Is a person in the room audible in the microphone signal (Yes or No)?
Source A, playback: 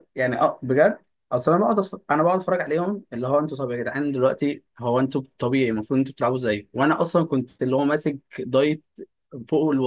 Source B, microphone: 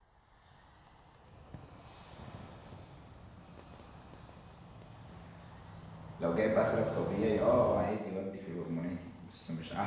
Yes